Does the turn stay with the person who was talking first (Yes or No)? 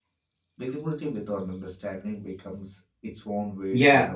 No